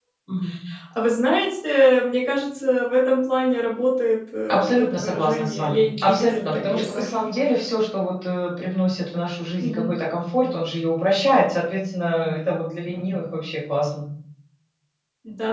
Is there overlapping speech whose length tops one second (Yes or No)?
Yes